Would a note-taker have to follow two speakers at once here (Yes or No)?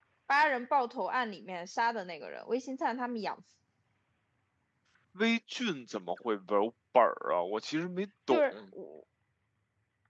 No